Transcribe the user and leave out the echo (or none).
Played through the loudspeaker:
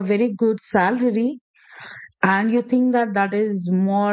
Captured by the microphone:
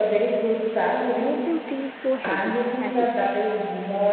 make them feel so heavy, as you said.